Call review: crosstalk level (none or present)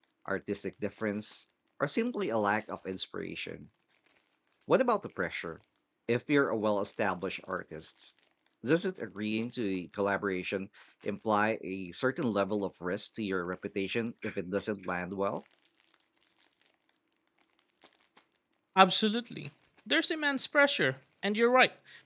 none